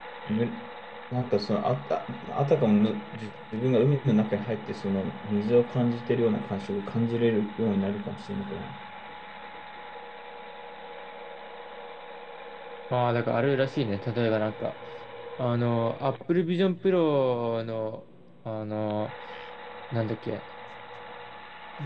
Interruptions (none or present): none